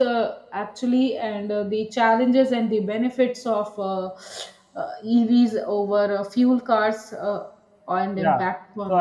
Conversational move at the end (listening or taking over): taking over